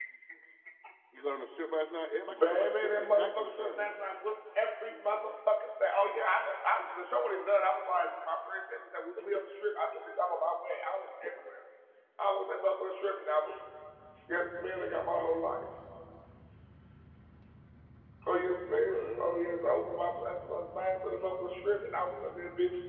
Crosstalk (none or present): present